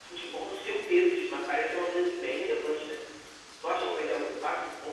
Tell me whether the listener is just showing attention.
Yes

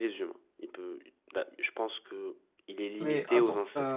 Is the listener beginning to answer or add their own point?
Yes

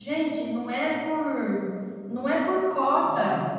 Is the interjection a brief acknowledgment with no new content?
Yes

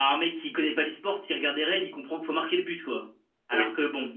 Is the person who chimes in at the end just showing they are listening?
Yes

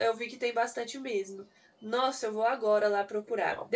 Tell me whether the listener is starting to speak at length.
No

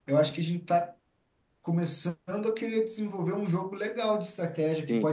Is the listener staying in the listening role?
No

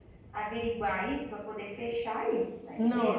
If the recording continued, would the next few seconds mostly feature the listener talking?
Yes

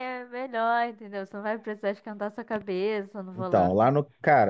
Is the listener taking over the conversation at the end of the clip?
Yes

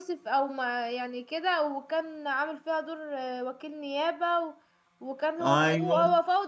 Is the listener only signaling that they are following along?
Yes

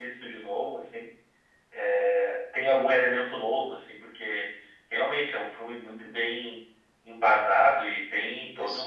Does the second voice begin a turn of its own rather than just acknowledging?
No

